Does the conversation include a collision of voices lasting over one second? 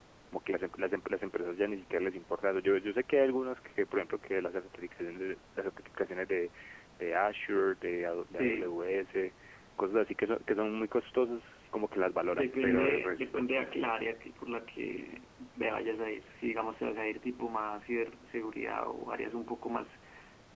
Yes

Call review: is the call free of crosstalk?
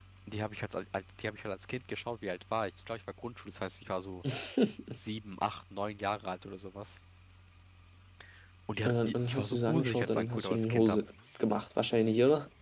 No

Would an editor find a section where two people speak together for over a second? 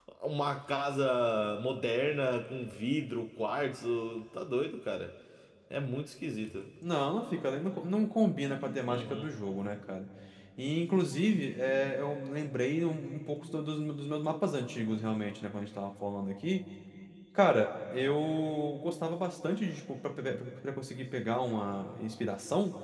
No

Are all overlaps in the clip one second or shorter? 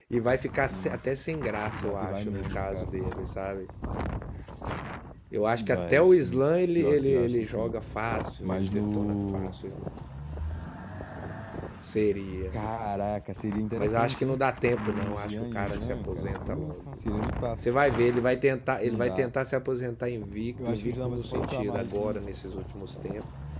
No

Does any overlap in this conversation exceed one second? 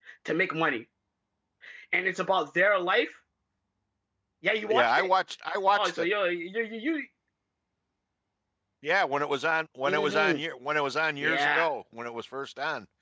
No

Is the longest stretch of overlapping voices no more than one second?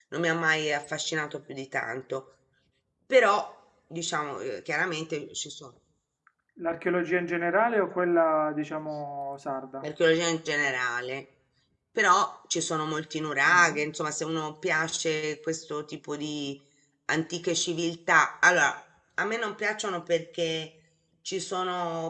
Yes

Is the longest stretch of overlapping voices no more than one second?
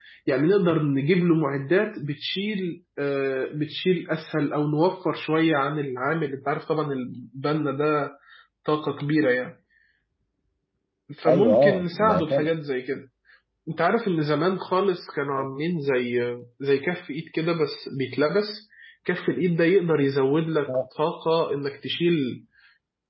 No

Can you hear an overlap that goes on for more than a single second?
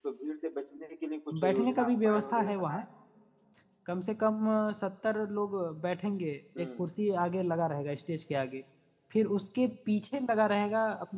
Yes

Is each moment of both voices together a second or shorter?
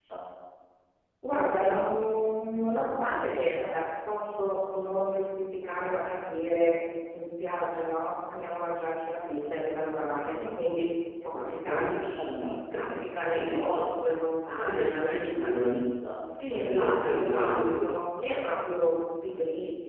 No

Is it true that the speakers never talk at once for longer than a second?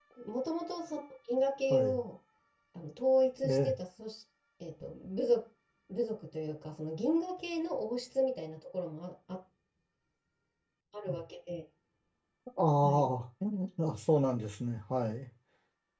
Yes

